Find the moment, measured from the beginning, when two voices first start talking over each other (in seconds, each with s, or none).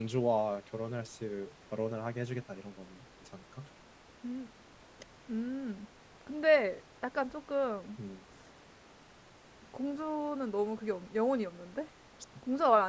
none